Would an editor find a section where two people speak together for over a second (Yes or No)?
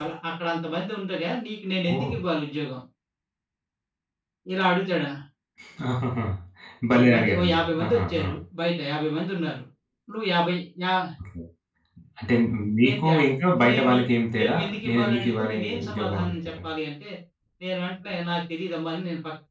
Yes